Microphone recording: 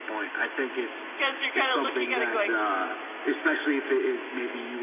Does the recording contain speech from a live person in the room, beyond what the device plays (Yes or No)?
Yes